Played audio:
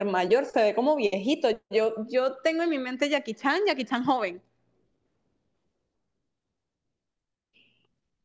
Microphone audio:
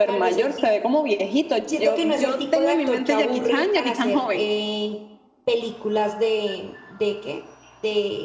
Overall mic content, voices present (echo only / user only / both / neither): both